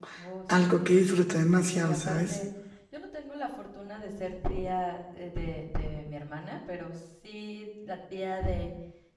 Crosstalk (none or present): present